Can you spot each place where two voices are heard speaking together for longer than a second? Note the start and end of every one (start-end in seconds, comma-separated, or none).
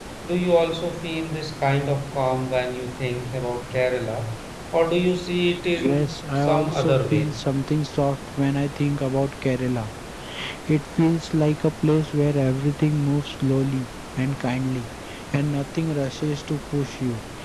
5.8-7.3